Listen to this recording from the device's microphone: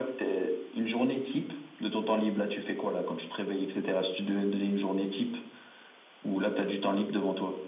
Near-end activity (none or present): none